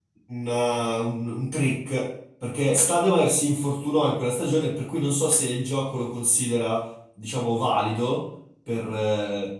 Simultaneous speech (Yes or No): No